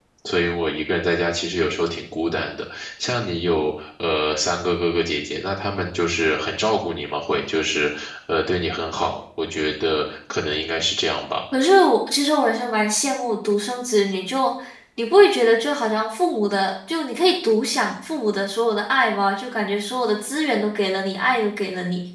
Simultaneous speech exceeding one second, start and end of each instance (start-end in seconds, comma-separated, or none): none